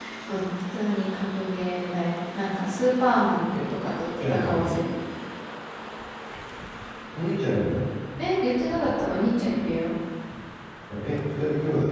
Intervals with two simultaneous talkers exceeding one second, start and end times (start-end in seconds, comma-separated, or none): none